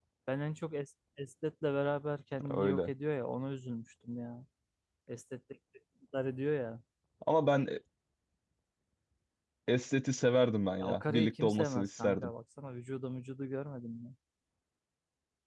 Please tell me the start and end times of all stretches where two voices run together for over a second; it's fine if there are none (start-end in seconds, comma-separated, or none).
10.8-12.3